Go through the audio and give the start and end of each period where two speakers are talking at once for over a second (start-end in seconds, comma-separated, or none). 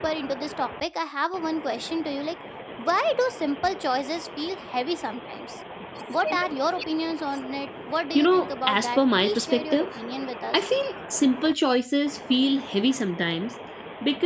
8.1-9.9